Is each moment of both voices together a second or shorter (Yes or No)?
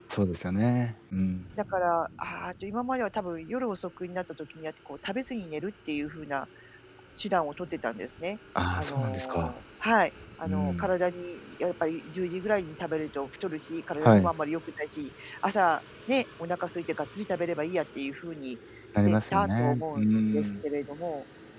No